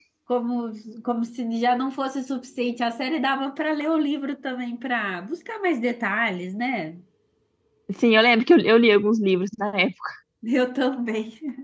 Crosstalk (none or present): none